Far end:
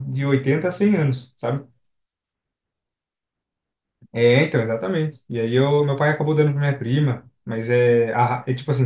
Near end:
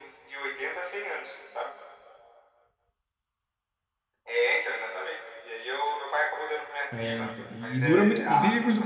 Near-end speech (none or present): present